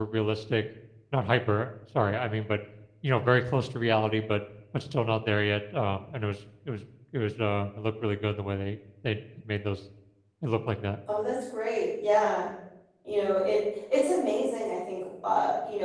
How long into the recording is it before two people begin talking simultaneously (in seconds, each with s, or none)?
none